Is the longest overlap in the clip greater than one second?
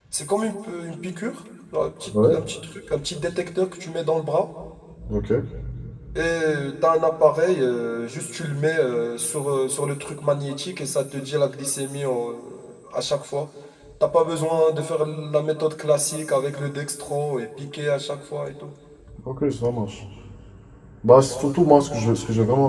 No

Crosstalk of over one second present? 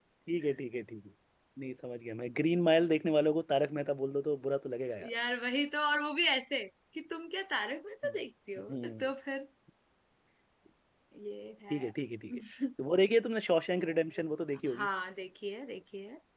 No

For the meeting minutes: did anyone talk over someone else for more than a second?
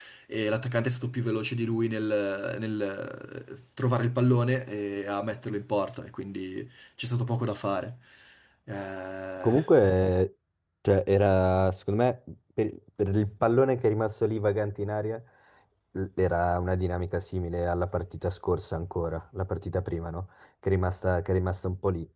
No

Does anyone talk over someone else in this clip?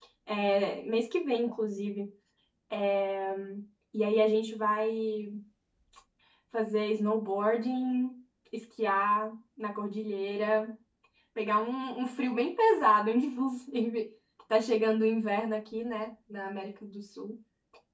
No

